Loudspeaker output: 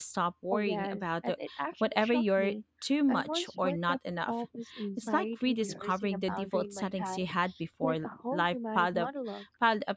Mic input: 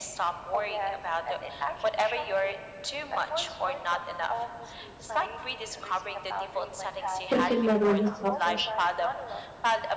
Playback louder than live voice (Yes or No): No